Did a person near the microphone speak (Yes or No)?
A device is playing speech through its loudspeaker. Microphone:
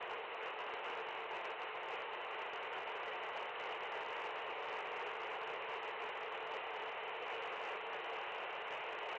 No